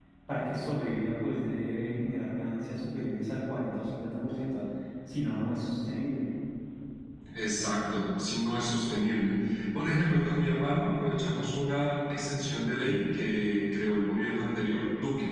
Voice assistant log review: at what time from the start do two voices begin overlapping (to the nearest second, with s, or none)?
none